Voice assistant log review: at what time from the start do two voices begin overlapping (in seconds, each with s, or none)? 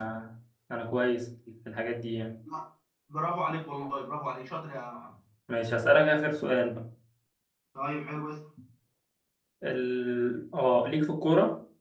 none